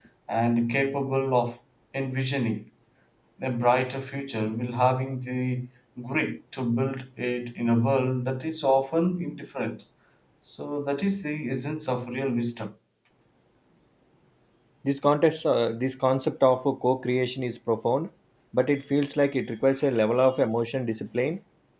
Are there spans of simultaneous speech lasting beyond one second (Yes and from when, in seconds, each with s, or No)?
No